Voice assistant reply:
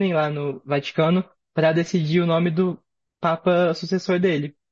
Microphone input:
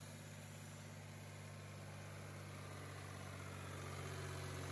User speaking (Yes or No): No